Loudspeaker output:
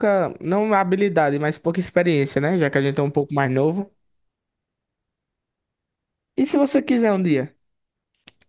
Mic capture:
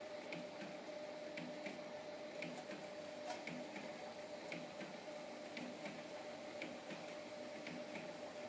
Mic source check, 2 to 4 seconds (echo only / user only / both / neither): neither